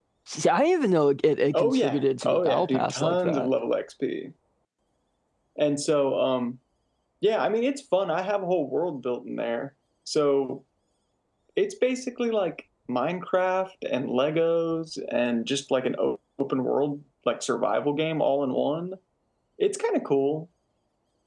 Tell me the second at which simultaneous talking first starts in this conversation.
1.5 s

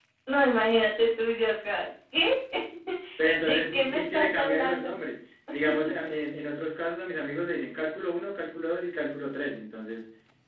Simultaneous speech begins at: 3.4 s

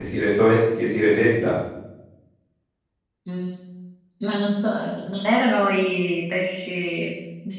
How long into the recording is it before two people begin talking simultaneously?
none

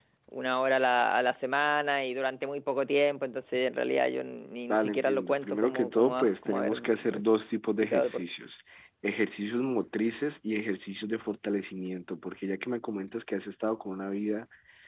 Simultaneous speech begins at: 4.7 s

